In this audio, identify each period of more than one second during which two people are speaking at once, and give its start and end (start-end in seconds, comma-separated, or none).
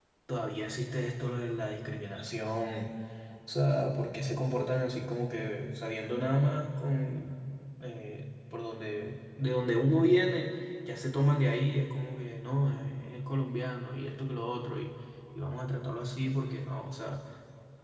none